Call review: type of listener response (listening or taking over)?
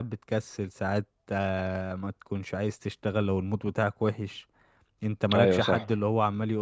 listening